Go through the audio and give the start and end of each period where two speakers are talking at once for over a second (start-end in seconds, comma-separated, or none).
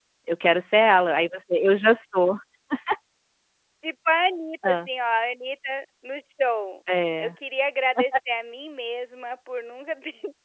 none